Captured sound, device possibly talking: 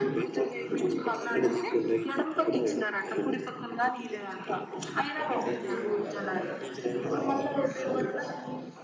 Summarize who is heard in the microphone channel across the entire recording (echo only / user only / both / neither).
both